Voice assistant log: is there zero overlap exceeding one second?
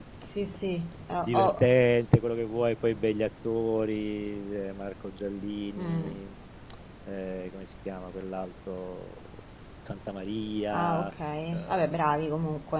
Yes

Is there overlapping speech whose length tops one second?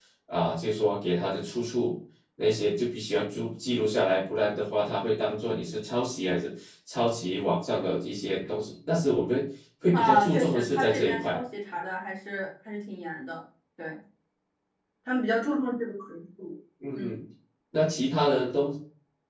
Yes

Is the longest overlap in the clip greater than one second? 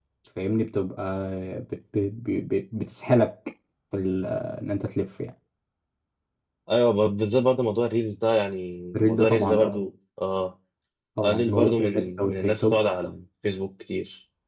Yes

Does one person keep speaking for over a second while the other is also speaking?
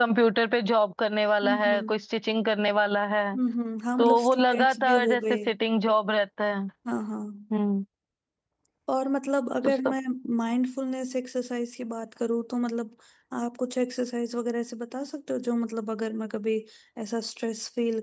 Yes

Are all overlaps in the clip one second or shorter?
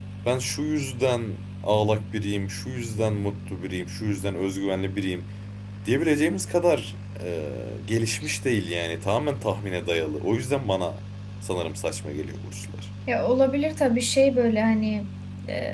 Yes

